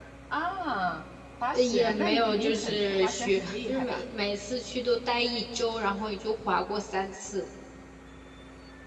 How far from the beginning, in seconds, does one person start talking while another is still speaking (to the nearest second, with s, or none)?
2 s